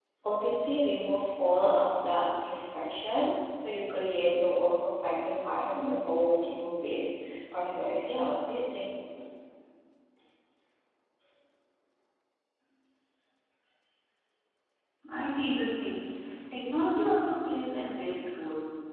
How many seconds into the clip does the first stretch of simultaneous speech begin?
none

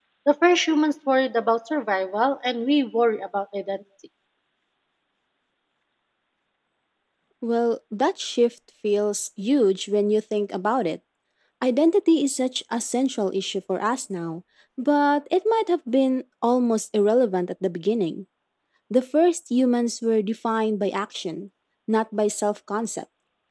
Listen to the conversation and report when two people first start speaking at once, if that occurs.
none

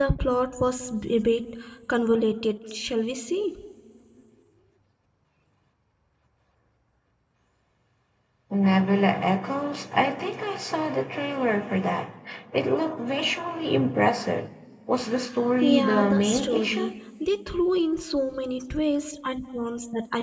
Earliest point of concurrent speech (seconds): 16 s

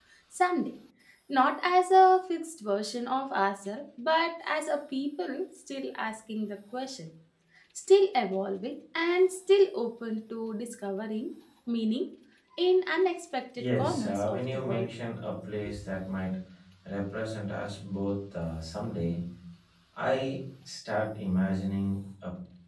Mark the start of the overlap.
14 s

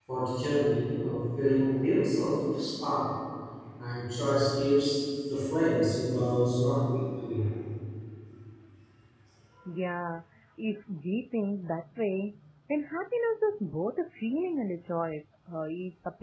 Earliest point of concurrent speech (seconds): none

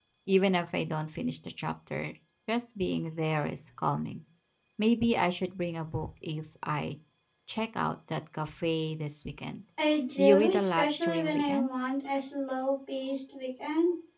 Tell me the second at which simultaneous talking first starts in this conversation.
10 s

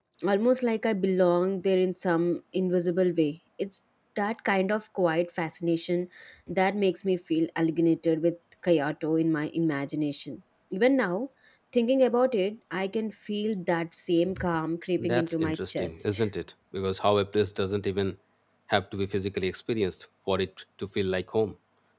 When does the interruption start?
15 s

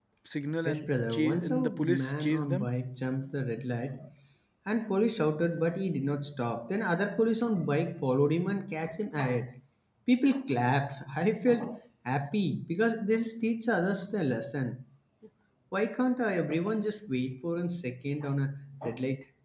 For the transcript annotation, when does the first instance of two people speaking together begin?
1 s

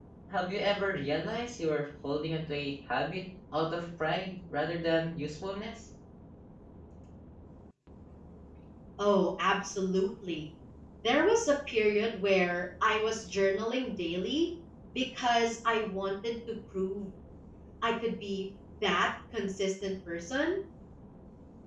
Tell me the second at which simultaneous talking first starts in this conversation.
none

